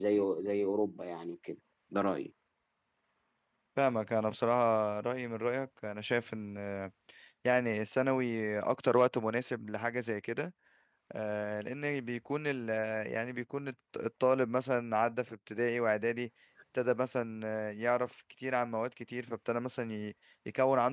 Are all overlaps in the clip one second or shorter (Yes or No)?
Yes